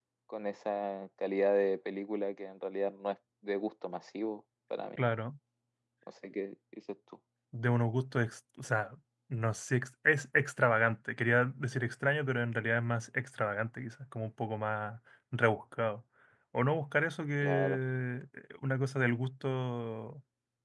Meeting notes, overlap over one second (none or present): none